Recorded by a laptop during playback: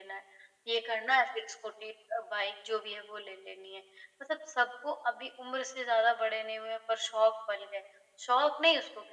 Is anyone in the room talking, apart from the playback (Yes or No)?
No